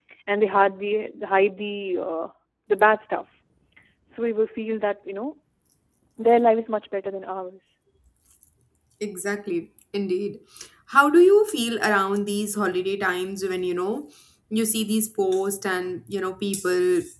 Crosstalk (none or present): none